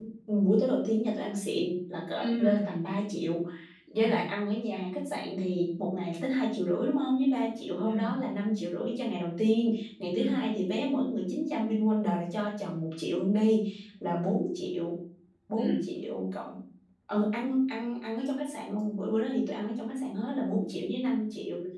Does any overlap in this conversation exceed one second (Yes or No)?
No